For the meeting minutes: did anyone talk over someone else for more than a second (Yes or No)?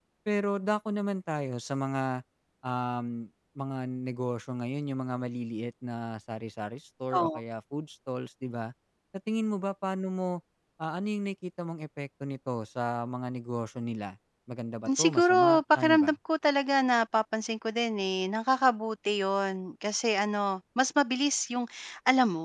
Yes